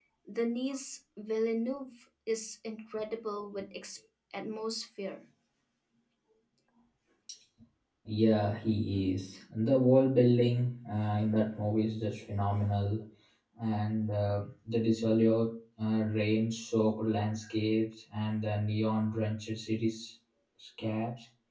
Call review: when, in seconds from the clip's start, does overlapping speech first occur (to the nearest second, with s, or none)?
none